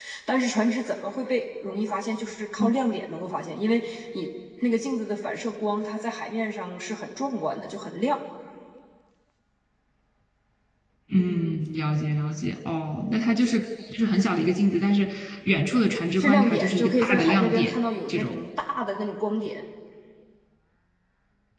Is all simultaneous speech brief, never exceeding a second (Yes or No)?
No